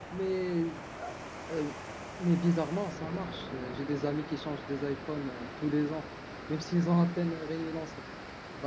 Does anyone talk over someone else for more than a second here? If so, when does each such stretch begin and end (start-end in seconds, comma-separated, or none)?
none